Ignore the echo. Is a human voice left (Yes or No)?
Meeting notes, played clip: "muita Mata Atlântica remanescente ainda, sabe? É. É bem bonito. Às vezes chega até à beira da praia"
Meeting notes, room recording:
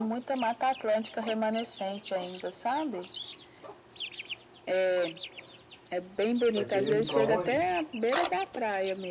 Yes